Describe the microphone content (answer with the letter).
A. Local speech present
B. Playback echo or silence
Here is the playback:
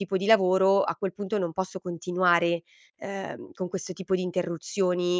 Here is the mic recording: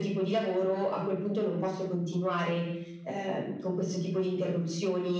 B